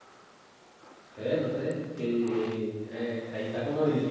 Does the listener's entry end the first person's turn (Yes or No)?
Yes